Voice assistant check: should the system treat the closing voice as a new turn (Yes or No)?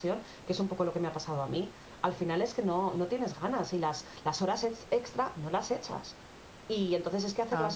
No